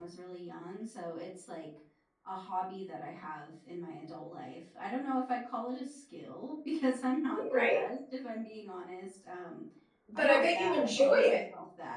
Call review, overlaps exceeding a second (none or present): present